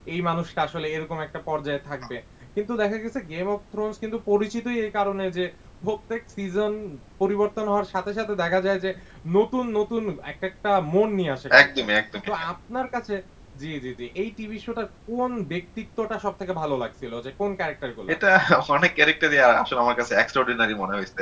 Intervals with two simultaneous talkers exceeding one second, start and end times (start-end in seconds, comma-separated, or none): none